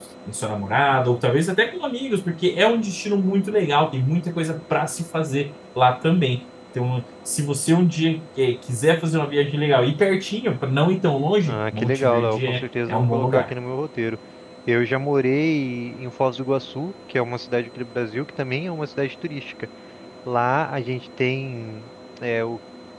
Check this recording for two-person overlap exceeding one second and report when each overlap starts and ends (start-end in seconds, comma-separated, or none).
11.4-13.5